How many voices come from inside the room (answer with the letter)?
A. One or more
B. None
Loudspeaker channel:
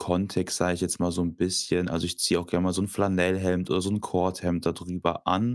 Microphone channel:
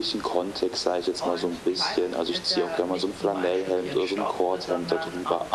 A